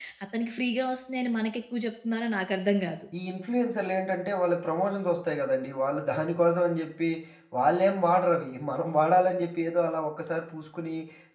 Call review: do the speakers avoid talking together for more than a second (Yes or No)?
Yes